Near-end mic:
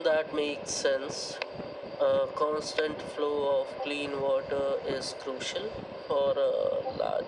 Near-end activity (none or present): none